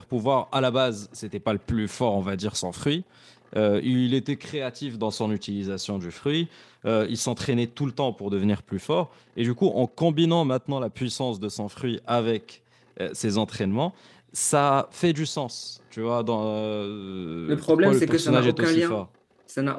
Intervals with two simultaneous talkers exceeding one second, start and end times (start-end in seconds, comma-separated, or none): 17.5-19.0